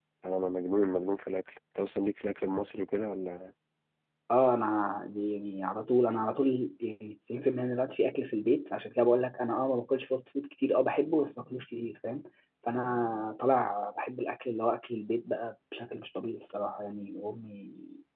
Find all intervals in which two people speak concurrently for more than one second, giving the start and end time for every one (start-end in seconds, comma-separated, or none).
none